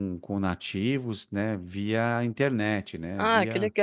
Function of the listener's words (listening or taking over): taking over